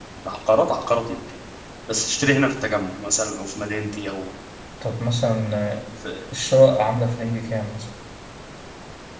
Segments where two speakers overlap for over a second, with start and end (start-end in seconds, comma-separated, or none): none